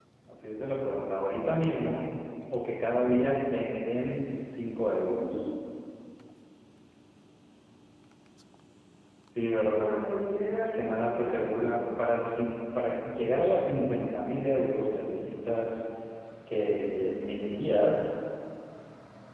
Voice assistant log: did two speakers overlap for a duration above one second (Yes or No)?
Yes